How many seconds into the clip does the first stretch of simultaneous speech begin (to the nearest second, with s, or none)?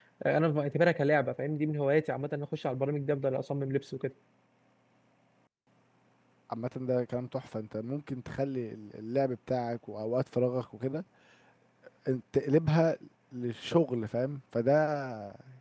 none